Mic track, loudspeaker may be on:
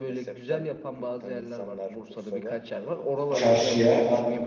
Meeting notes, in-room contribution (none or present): present